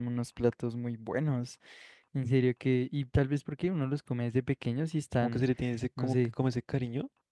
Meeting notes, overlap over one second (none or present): none